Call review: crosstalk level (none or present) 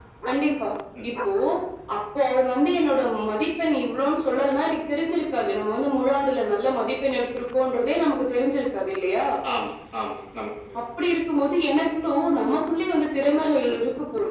none